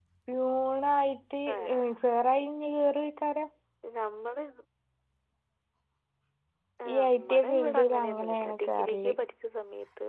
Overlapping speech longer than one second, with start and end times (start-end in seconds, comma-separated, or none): 6.9-9.1